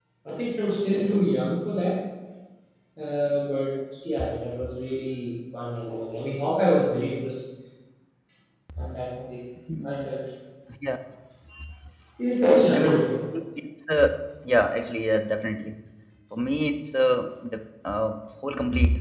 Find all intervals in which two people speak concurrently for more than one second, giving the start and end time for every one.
none

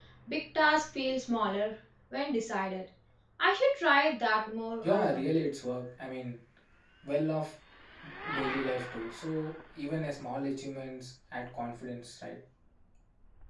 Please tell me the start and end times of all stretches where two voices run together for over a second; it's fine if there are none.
none

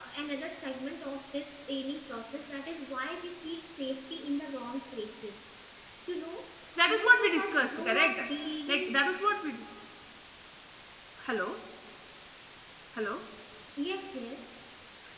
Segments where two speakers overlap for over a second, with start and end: 6.9-8.2

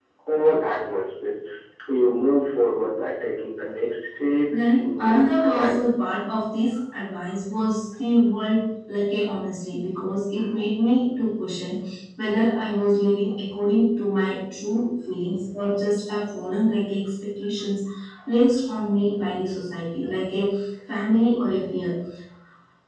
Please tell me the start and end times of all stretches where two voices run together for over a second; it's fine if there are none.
4.5-5.8

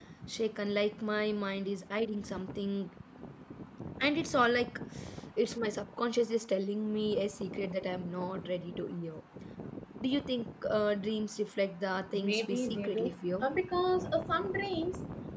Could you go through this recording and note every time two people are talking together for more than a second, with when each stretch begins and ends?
12.1-13.5

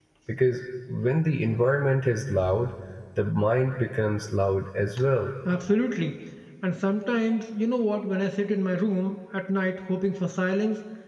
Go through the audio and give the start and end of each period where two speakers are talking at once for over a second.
none

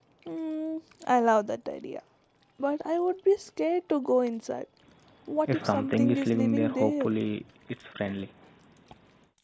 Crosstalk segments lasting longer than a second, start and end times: 5.5-7.1

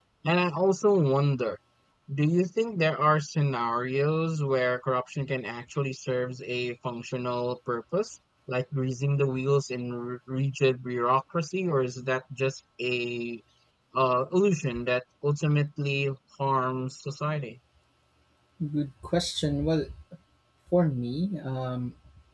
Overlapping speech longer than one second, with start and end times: none

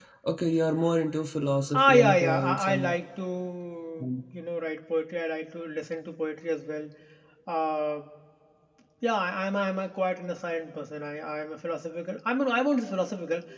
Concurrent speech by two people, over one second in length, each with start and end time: 1.7-3.0

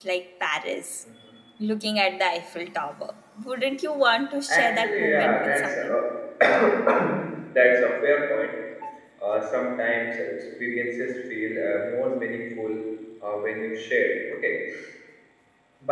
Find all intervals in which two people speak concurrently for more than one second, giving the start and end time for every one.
4.5-5.9

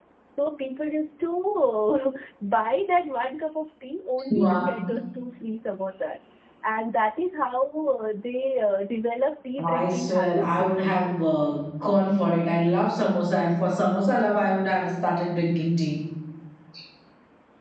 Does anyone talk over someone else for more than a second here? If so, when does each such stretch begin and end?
9.6-11.1

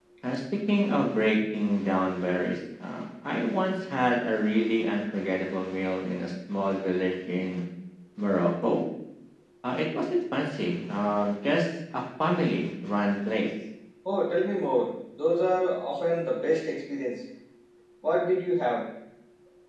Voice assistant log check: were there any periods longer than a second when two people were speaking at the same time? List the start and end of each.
none

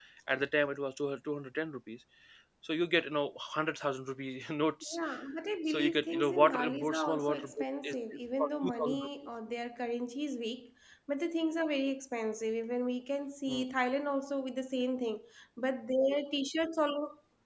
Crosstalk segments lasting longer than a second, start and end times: 5.7-9.1

